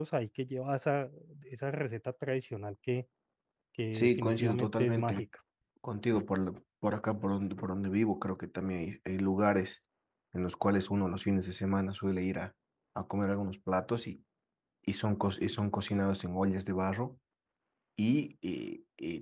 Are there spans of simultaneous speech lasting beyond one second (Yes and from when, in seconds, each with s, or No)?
Yes, from 3.9 s